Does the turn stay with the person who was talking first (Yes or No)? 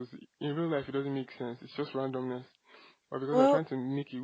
Yes